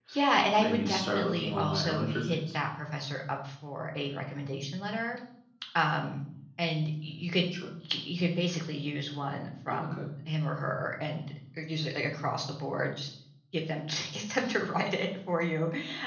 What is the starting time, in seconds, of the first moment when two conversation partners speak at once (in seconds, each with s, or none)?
0.6 s